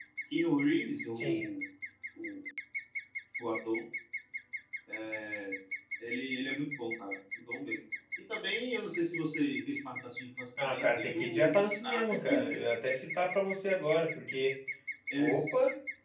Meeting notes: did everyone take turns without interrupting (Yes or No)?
No